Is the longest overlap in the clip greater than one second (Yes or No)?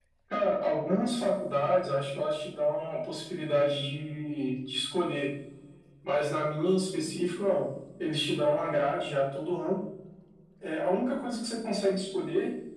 No